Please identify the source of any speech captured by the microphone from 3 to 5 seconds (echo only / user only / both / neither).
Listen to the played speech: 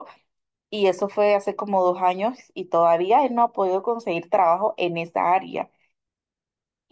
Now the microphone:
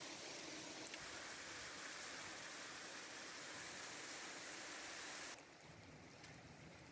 neither